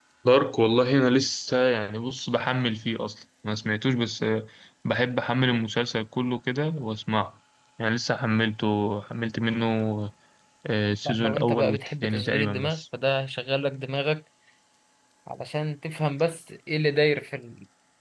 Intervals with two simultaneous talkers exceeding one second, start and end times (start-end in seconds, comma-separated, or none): 11.1-12.8